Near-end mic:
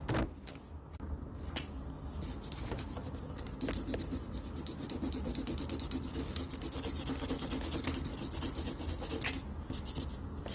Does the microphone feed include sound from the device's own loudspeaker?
No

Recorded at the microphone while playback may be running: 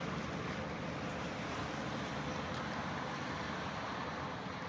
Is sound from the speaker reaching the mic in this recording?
No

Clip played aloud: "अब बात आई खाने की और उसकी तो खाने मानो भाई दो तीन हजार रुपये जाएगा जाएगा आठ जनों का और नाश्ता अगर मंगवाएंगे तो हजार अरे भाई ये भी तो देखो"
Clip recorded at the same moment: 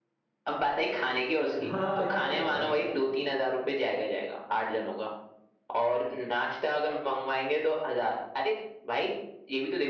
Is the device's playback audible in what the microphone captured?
Yes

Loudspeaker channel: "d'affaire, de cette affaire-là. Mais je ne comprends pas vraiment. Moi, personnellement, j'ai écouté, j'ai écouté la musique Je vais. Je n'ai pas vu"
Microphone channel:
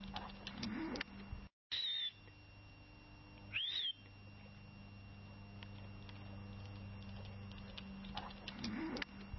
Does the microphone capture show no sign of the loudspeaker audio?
Yes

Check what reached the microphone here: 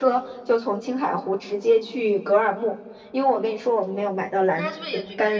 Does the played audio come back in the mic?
Yes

